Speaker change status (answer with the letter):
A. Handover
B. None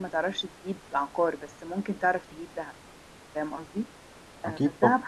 B